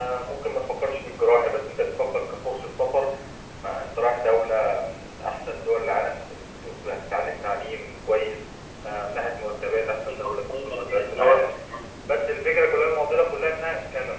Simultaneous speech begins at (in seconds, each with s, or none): 10.1 s